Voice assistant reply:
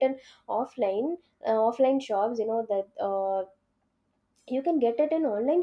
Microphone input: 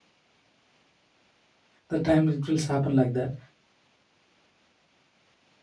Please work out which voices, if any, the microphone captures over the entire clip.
user only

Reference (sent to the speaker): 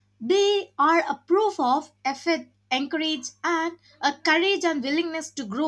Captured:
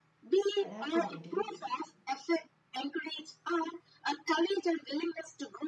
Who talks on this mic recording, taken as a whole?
both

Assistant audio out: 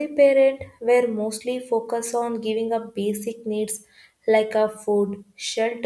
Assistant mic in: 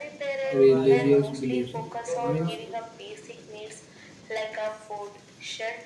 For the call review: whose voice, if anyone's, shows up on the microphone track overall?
both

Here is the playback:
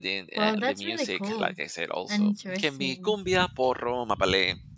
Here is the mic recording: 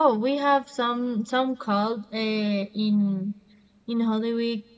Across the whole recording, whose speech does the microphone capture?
user only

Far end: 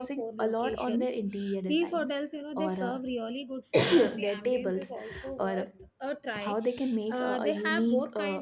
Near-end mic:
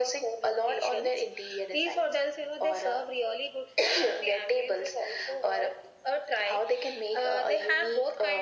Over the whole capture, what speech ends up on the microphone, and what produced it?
echo only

